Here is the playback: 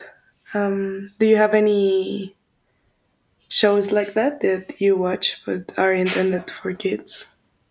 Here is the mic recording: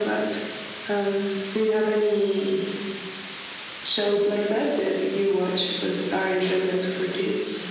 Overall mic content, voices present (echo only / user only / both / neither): echo only